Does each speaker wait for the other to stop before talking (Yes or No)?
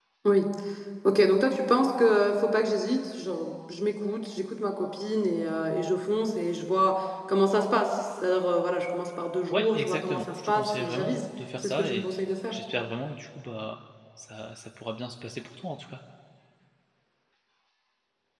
No